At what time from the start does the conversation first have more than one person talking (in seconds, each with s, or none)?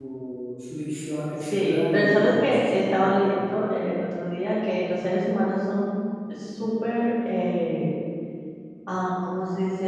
1.5 s